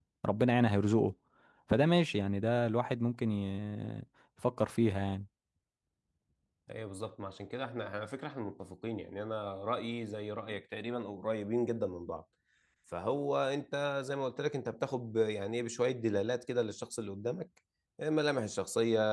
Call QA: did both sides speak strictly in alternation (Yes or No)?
Yes